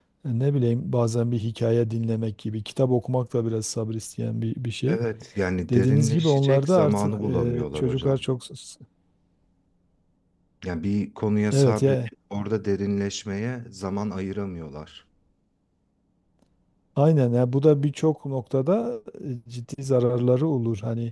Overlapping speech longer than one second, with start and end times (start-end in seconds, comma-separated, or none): 5.7-8.2